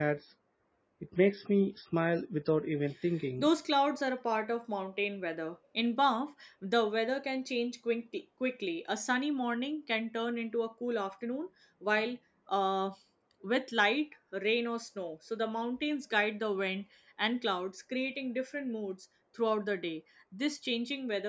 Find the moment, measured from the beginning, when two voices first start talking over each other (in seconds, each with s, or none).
none